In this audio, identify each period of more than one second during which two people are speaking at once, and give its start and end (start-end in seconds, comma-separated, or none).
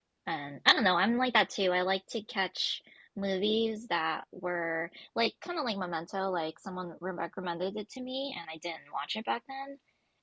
none